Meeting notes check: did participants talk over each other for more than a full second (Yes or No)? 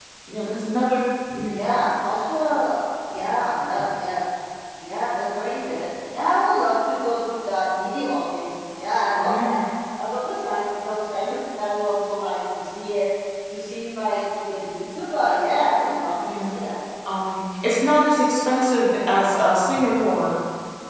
No